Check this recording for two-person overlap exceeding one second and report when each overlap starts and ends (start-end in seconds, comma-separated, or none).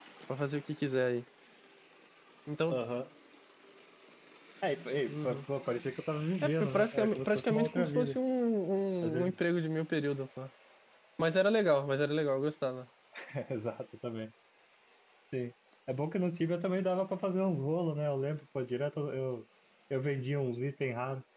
6.4-8.2